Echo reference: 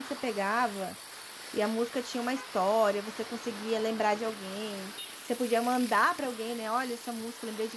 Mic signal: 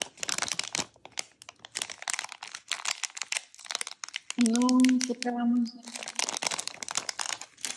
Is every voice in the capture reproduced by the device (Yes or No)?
No